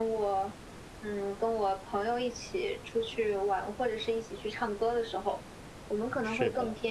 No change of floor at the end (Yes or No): Yes